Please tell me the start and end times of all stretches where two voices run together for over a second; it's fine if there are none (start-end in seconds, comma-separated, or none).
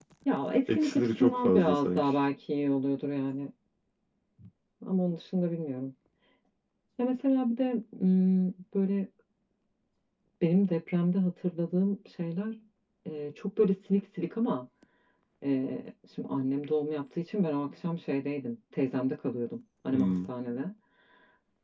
0.8-2.1